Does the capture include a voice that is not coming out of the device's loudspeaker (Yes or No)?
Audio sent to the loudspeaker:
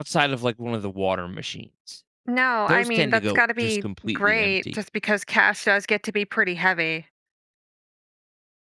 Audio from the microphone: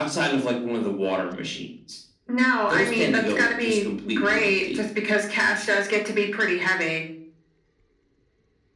No